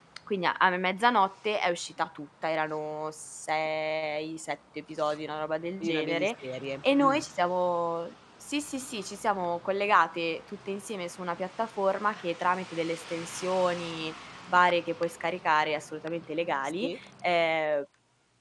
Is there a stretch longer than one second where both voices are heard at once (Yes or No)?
No